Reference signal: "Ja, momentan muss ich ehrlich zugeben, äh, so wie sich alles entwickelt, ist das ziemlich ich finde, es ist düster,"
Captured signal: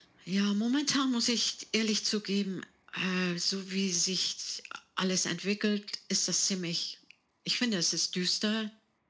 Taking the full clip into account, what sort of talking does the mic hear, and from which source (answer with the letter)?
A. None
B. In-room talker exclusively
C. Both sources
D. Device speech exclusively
D